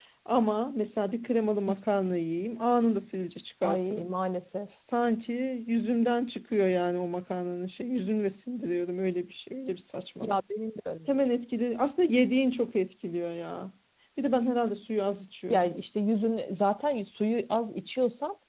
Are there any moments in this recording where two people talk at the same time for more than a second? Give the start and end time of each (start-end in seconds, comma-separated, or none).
none